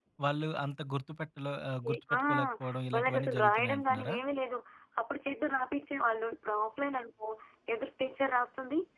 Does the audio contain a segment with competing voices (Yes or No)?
Yes